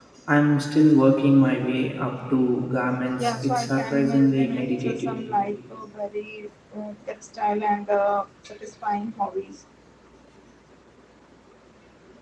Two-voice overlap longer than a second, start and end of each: 3.2-5.1

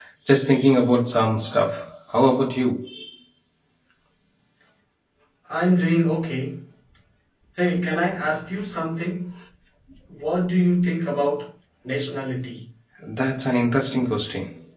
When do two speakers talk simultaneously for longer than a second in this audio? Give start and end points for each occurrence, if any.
none

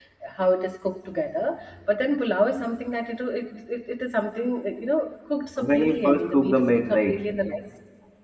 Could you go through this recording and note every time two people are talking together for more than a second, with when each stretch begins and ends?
5.6-7.2

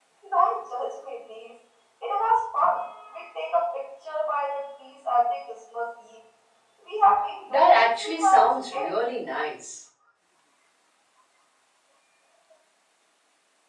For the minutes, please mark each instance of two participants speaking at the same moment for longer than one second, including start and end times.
7.5-8.9

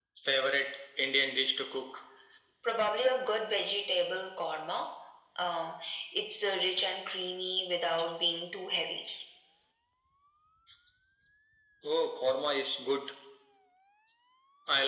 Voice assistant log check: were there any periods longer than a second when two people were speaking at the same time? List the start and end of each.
none

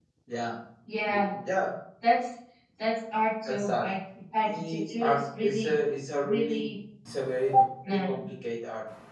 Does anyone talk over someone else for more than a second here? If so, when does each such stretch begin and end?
4.4-5.8

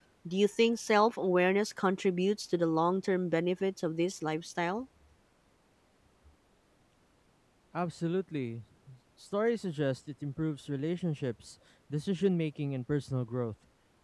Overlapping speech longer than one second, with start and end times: none

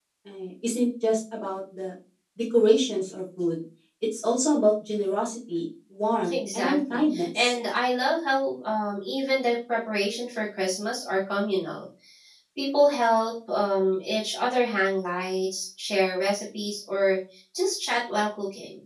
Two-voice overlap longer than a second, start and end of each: 6.3-7.5

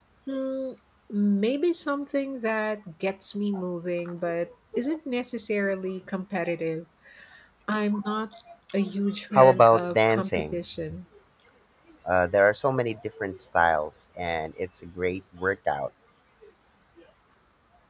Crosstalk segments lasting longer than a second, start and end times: 9.3-10.6

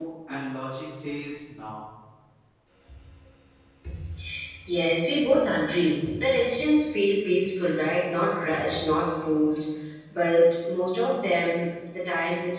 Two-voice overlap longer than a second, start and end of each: none

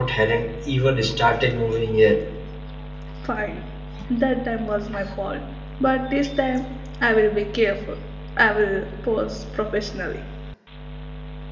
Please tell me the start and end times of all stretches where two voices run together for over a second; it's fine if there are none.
none

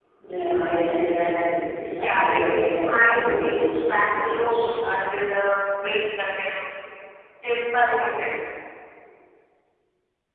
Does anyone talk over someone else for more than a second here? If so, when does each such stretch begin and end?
2.0-4.7

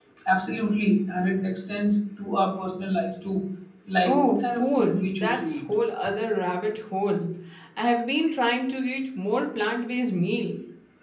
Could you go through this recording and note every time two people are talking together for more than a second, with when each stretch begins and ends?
4.0-5.6

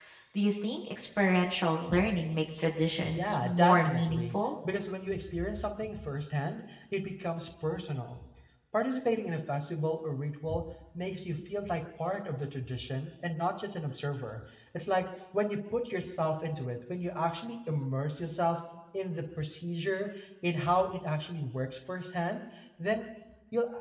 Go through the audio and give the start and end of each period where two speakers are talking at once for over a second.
3.1-4.3

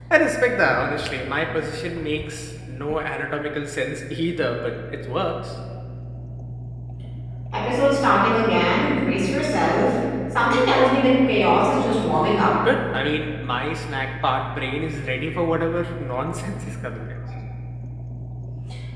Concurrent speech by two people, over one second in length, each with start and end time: none

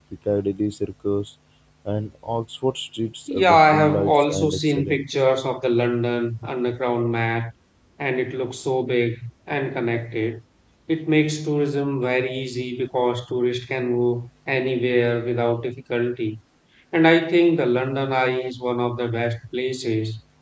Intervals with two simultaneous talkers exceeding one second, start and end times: 3.3-5.0

